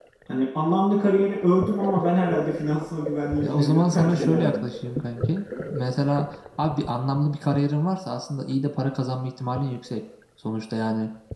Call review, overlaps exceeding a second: present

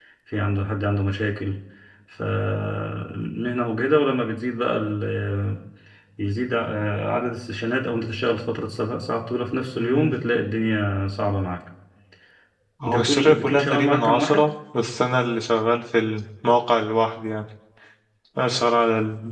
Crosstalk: present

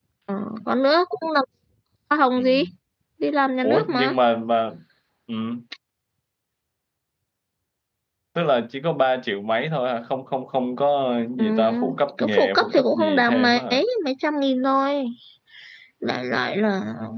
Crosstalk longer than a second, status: present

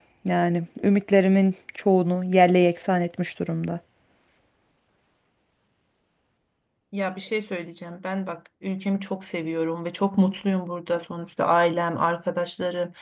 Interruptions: none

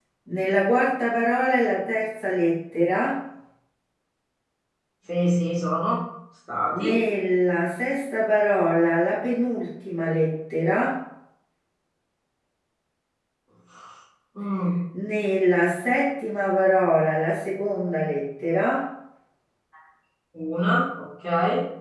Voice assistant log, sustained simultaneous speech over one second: none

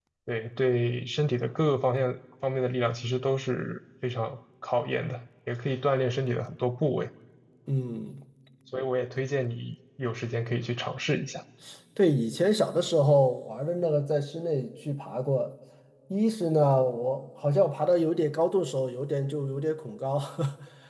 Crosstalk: none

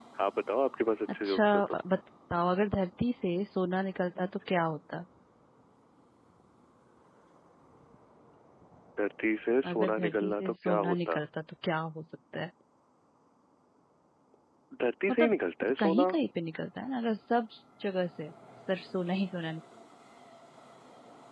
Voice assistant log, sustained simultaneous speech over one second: present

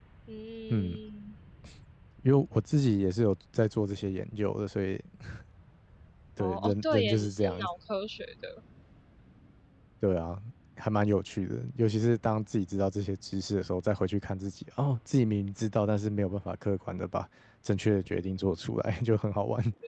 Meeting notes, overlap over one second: present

